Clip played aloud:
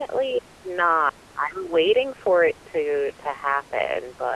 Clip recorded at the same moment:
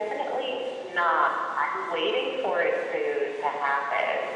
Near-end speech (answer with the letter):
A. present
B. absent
B